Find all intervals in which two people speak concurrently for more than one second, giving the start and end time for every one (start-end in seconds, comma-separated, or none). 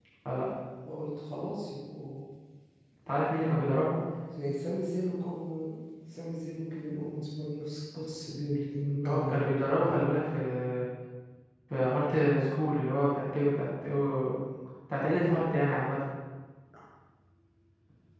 none